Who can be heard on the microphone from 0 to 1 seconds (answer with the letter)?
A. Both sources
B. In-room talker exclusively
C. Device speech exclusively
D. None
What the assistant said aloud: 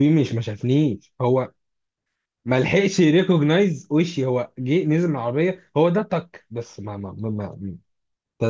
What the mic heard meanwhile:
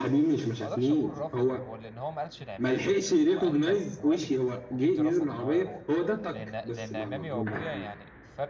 A